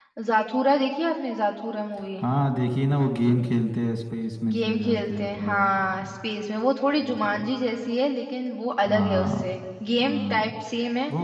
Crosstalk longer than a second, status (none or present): present